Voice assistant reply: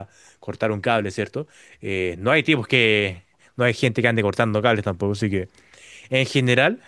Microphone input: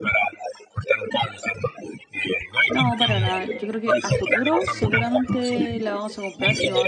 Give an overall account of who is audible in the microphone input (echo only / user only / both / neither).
both